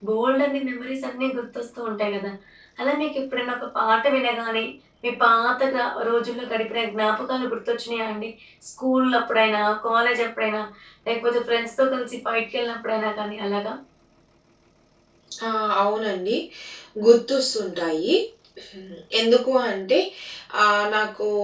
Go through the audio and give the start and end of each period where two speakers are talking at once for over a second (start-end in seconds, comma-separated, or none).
none